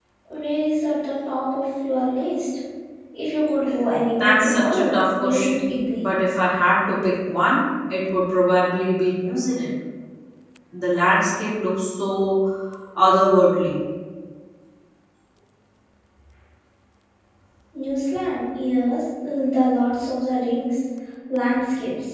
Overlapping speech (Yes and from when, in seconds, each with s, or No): Yes, from 4.1 s